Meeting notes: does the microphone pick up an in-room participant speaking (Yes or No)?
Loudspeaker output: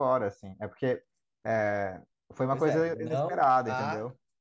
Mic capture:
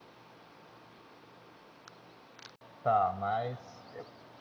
Yes